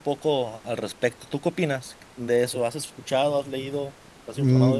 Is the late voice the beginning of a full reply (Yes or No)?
Yes